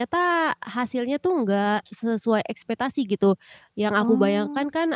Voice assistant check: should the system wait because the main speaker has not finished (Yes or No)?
Yes